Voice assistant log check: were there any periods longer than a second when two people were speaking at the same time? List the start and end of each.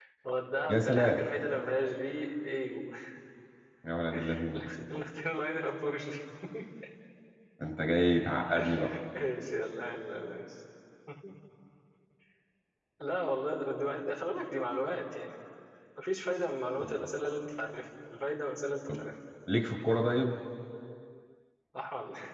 none

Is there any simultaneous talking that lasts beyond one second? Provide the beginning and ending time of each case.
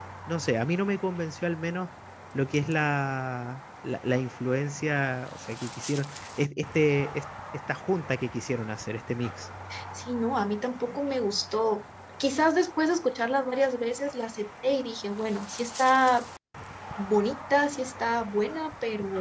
none

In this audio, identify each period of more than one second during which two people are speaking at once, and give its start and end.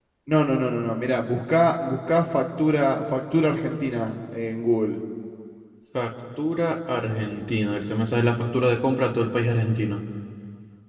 none

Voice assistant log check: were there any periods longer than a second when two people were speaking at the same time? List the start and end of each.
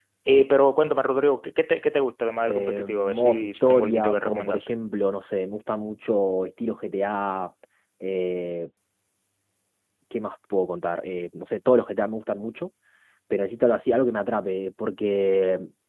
2.5-4.6

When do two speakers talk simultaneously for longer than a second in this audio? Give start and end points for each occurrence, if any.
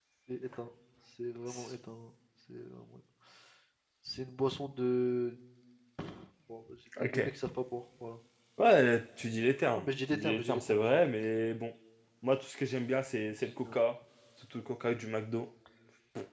9.8-11.0

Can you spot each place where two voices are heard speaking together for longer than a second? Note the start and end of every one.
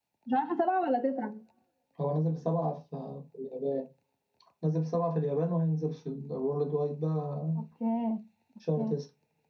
none

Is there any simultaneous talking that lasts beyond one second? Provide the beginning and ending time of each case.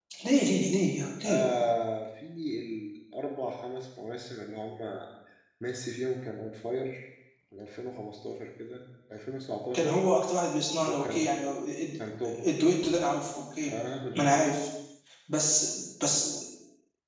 none

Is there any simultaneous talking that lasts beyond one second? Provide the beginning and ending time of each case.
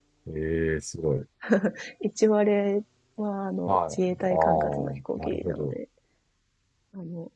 3.7-5.8

